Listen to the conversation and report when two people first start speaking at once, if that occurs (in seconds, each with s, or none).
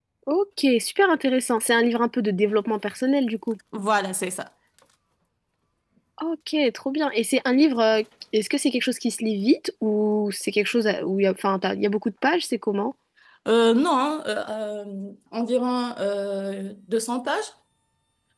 none